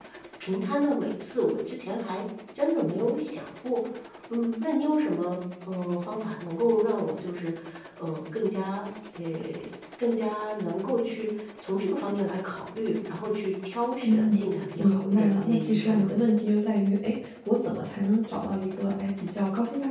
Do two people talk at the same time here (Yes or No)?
Yes